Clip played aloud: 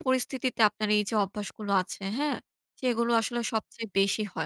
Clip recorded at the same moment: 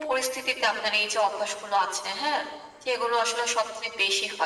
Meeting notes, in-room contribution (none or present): none